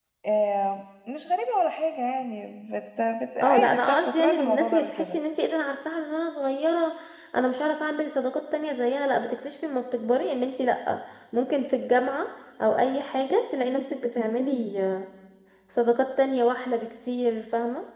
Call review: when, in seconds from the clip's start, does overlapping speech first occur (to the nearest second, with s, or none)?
3 s